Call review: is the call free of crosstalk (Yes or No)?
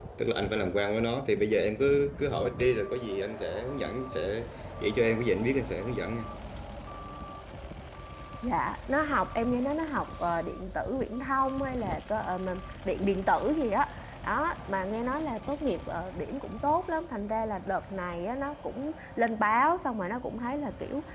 Yes